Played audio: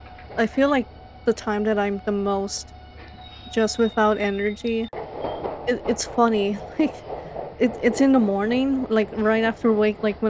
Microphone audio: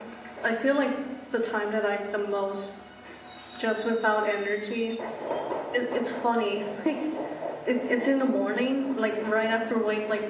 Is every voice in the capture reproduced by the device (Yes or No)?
Yes